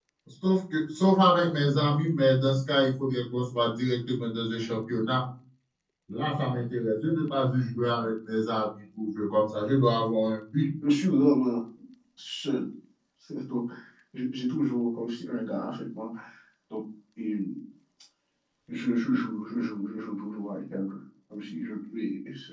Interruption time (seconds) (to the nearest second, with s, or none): none